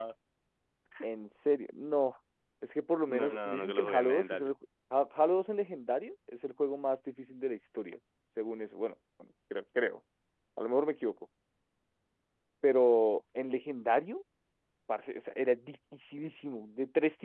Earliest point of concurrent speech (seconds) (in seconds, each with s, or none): 3.1 s